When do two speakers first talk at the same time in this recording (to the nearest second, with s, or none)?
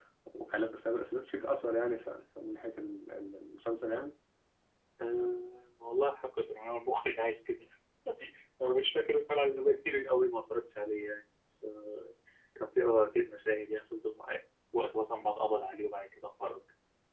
none